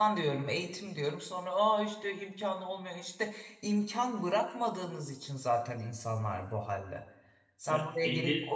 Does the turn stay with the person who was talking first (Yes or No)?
Yes